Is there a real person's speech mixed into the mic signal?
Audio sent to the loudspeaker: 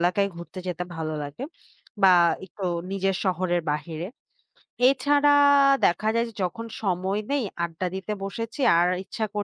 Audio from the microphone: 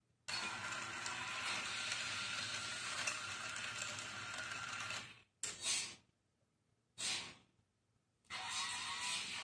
No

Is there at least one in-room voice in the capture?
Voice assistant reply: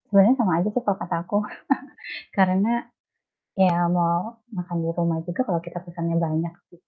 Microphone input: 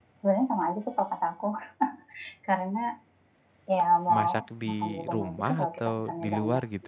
Yes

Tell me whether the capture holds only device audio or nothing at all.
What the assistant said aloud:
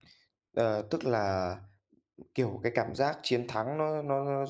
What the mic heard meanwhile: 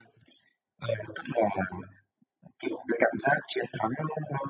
Yes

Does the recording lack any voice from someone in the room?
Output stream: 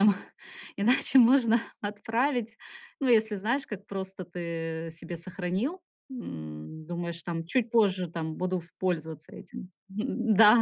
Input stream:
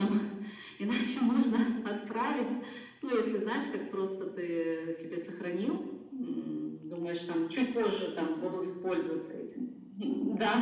Yes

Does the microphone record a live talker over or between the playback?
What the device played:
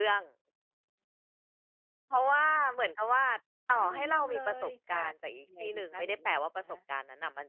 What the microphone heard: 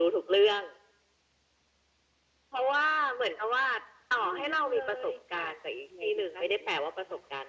No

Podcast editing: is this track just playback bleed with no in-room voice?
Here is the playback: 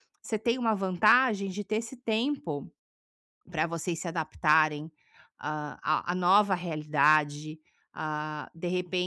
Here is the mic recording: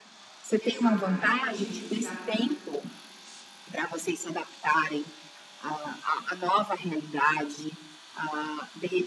No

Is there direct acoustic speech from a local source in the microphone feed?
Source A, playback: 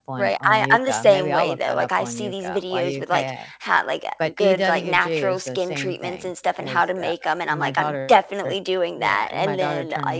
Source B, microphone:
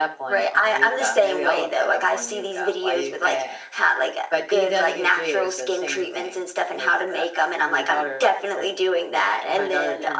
No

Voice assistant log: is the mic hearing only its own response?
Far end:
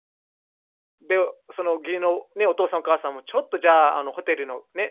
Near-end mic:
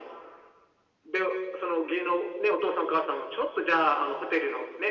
Yes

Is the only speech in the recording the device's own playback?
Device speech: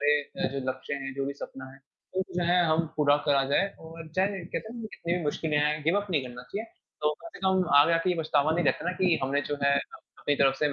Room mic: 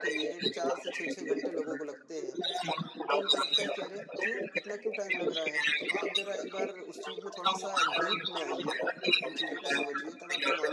No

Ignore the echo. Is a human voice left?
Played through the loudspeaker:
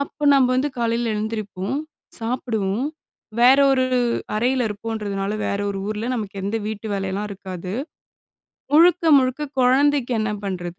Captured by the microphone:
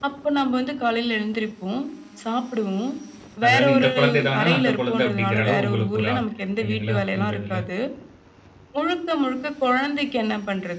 Yes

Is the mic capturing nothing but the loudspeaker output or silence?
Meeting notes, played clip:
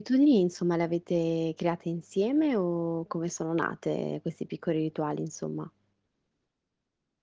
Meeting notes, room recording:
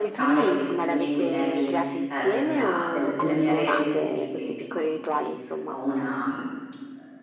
No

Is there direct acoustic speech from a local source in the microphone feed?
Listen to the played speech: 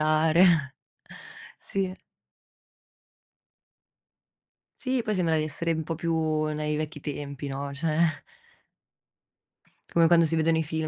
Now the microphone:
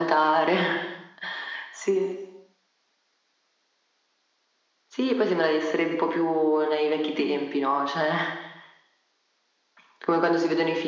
Yes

